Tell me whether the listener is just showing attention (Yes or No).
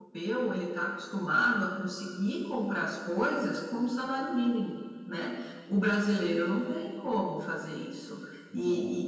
Yes